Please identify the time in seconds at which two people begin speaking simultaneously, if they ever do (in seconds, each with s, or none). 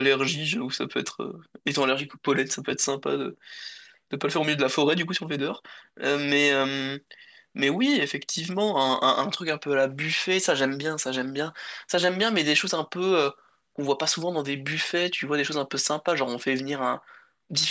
none